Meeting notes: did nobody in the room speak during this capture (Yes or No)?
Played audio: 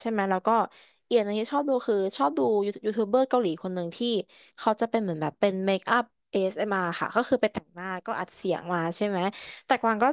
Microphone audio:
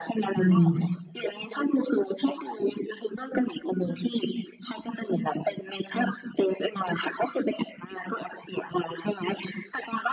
No